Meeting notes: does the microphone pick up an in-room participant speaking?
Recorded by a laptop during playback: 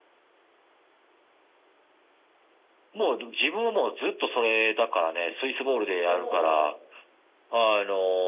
Yes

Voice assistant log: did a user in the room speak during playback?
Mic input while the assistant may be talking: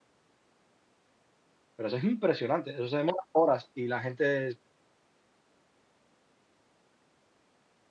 Yes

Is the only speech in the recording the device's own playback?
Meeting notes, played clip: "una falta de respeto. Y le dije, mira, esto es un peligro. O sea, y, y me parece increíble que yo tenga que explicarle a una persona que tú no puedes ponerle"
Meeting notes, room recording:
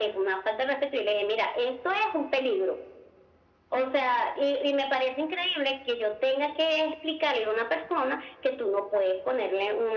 Yes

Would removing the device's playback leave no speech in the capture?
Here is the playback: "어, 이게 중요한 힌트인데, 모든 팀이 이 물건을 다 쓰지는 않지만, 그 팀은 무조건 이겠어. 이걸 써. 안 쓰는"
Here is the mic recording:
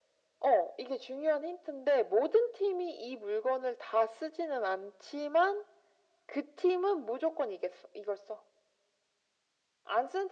Yes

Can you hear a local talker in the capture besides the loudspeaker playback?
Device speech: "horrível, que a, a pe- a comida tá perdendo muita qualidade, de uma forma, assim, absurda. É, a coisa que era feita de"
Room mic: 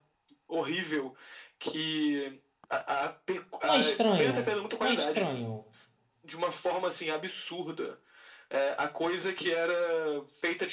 Yes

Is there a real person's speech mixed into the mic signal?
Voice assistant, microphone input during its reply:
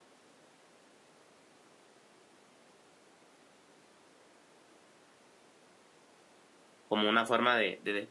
Yes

